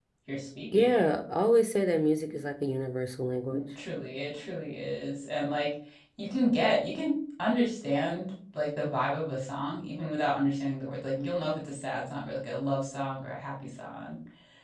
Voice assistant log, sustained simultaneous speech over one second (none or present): none